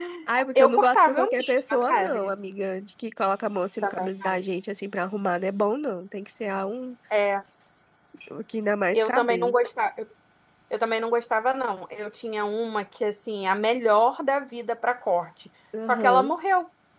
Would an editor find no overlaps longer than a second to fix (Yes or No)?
No